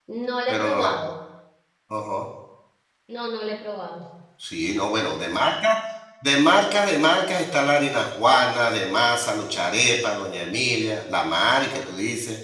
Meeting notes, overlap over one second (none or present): none